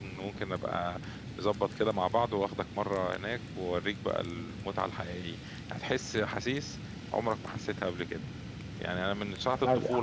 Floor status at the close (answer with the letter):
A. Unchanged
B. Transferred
A